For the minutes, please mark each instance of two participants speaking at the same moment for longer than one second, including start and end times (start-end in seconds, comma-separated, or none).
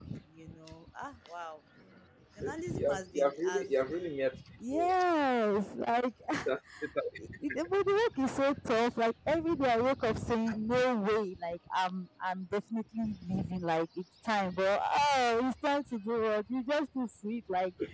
2.4-3.7